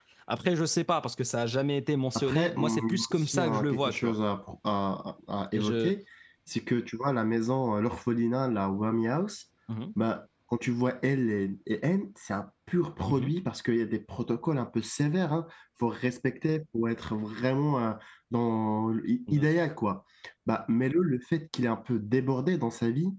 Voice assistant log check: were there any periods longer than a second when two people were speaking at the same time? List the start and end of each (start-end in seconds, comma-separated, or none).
2.1-4.1